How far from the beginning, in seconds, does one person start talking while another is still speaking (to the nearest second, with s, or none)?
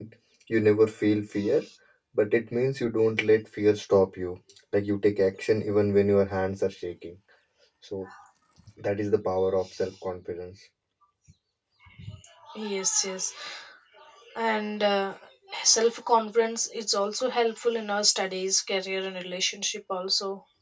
none